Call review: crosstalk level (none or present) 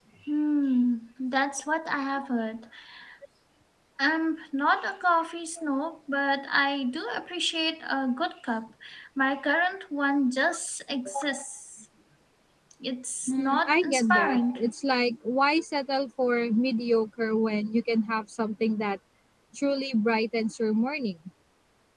present